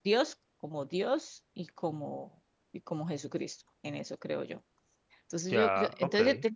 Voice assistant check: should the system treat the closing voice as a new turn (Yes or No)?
No